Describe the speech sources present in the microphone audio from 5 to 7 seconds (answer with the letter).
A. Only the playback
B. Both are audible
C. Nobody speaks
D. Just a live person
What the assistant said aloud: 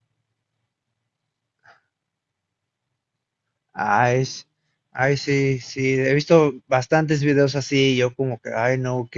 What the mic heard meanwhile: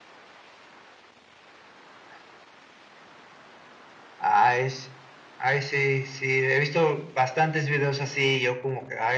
A